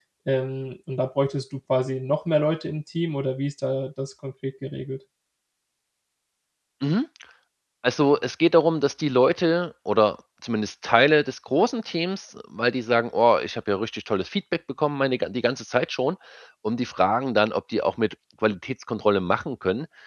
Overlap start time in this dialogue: none

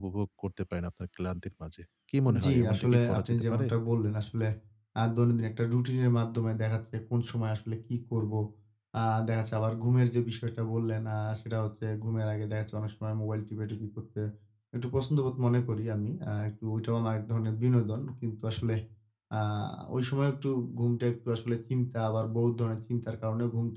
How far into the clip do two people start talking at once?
2.3 s

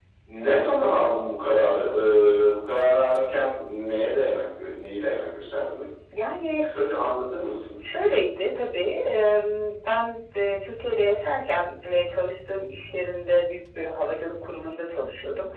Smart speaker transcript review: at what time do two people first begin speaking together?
none

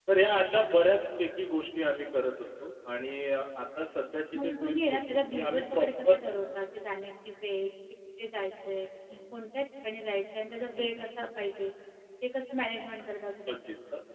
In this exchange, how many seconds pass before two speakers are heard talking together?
4.4 s

